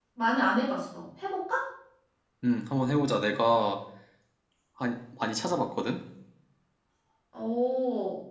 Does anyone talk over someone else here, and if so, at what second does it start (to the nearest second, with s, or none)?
none